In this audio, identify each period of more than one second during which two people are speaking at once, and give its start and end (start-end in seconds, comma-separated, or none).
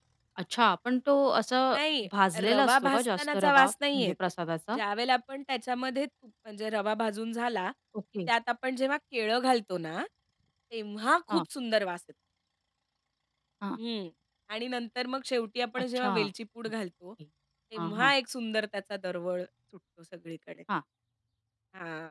2.4-4.1